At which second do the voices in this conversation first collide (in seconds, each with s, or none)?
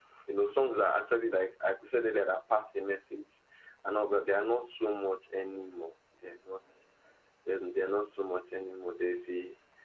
none